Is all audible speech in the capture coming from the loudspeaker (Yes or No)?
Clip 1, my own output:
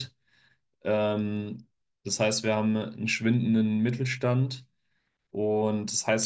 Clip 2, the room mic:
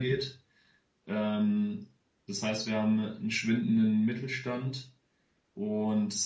Yes